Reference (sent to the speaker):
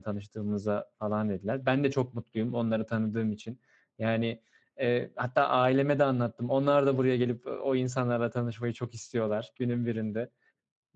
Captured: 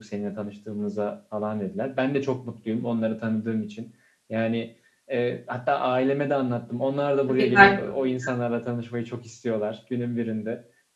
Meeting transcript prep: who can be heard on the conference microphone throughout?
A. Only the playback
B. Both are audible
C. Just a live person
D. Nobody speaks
B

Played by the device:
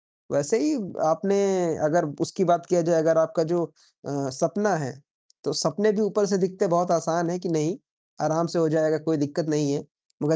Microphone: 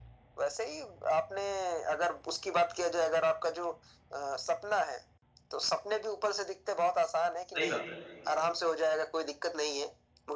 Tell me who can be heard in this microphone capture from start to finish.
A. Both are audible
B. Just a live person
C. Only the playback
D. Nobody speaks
A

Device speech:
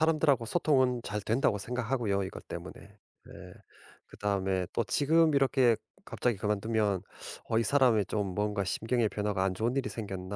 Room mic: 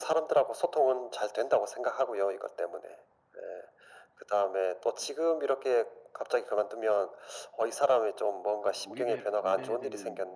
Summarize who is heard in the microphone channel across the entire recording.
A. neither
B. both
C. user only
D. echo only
B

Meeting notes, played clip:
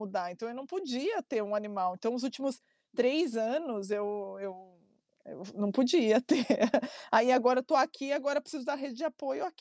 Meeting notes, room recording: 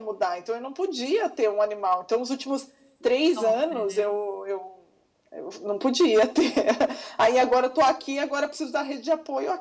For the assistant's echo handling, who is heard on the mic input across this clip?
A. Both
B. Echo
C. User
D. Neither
A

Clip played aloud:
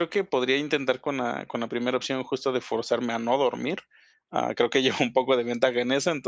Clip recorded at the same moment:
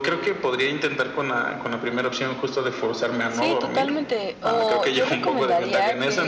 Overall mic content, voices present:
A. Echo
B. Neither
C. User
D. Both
D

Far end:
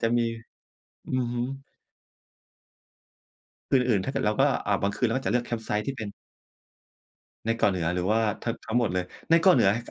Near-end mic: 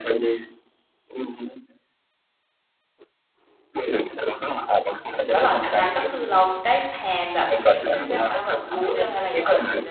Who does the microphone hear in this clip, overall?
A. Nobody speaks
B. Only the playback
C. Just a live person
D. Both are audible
D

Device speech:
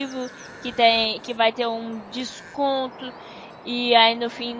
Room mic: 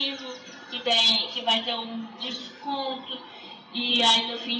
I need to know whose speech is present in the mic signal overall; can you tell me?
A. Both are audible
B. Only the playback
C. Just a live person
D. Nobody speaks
B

